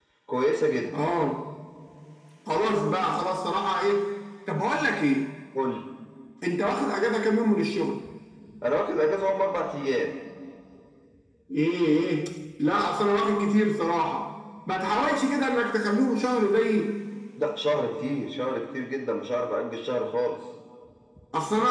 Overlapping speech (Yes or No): No